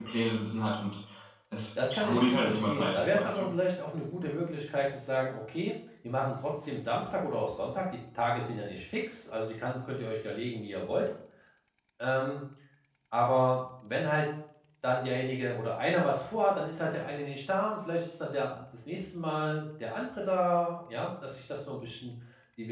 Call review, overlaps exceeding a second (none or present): present